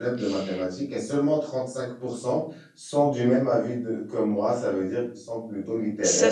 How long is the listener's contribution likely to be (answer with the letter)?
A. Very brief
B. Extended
B